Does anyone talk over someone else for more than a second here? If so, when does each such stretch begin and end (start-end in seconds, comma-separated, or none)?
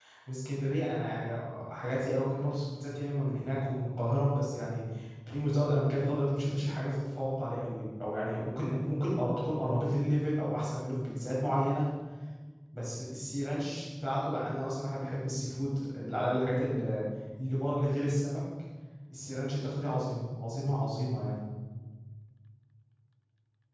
none